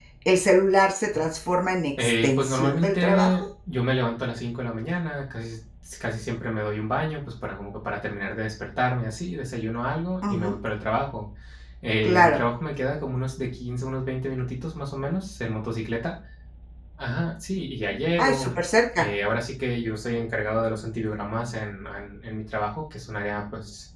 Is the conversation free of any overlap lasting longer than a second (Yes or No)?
No